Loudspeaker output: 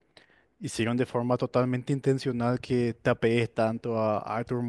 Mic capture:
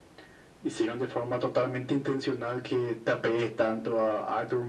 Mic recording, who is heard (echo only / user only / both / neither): echo only